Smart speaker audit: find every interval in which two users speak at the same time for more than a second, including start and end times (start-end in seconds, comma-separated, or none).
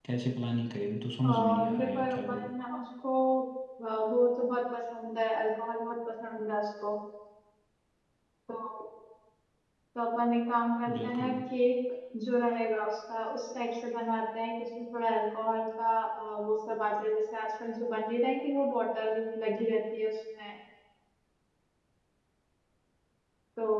1.3-2.5